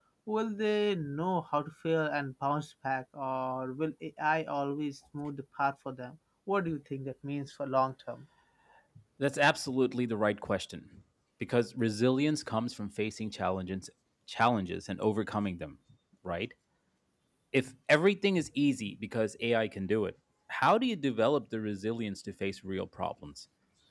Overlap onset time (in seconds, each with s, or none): none